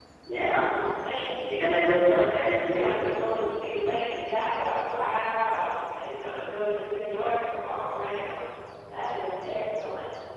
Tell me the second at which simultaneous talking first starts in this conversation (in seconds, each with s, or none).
1.6 s